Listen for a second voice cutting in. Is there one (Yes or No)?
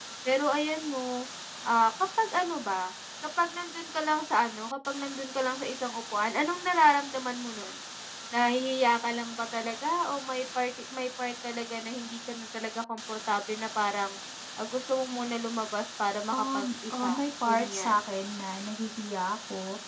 Yes